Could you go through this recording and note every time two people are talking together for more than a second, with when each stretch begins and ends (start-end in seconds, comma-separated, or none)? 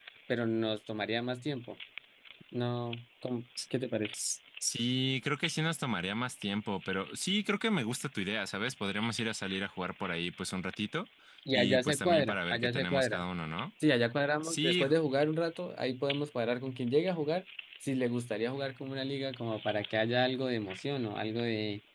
11.5-13.2